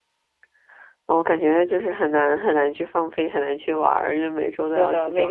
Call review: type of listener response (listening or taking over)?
taking over